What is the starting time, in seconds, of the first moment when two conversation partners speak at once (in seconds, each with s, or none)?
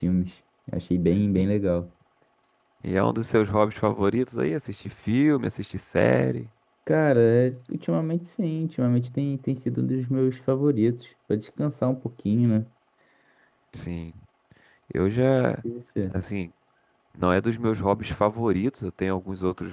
none